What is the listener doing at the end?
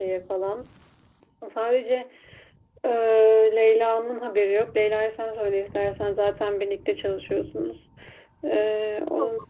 listening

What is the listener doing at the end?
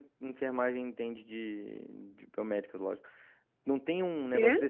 listening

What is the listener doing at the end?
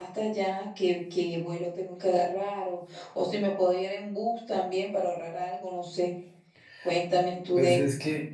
taking over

